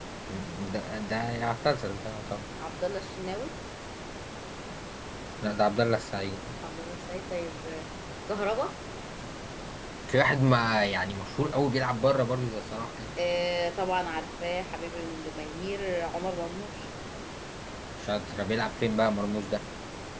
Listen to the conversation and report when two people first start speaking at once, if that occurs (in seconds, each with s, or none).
none